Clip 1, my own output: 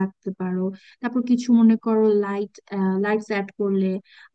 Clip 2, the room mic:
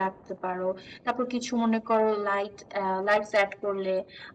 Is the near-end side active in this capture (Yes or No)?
No